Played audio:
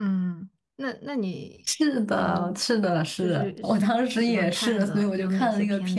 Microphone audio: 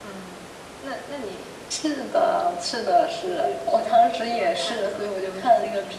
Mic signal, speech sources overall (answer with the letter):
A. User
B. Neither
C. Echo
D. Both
C